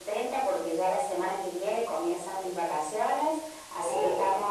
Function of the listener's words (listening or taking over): listening